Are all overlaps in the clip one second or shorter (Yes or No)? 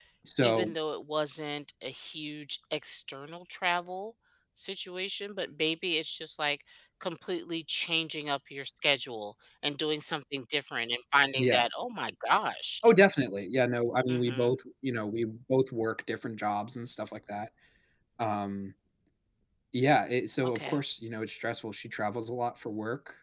Yes